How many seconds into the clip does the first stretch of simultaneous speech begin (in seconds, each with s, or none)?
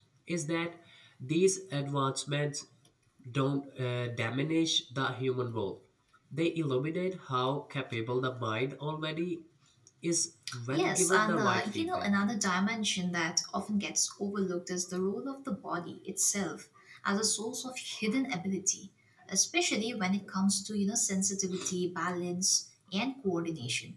10.7 s